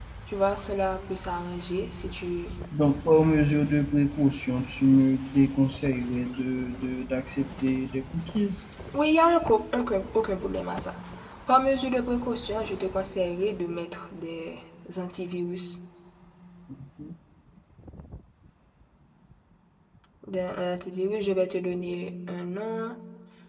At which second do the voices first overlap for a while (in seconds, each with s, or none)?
none